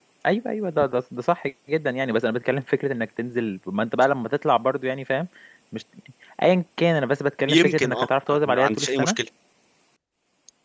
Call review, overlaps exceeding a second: present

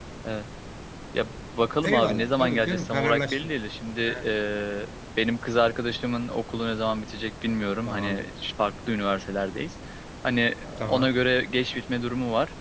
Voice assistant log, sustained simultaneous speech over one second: present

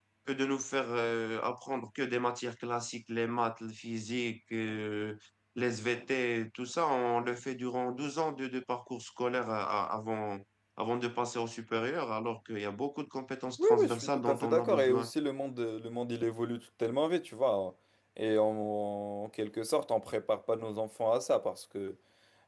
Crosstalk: present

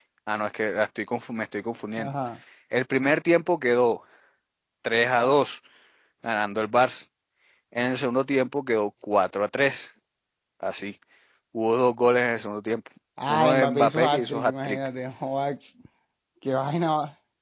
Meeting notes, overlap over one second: present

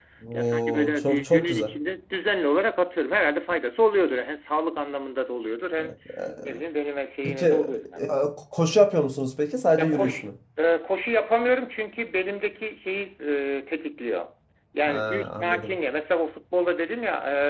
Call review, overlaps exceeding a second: present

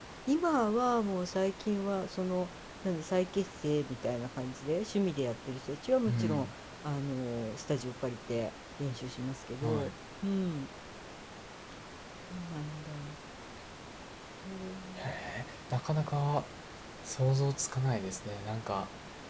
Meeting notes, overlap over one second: none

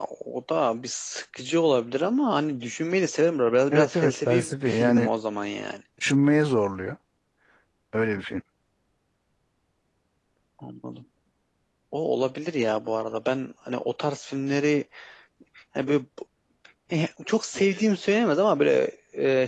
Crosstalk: present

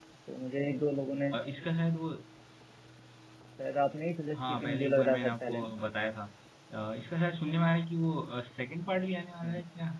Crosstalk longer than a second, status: present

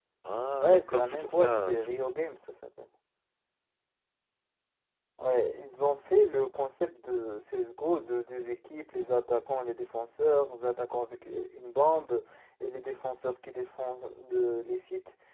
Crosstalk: present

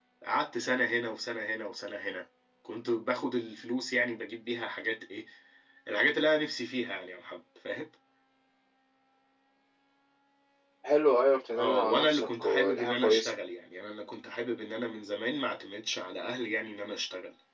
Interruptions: present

